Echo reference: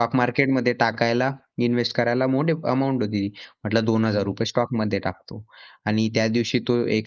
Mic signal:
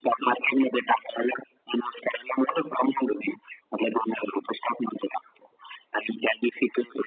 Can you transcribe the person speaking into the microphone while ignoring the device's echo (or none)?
none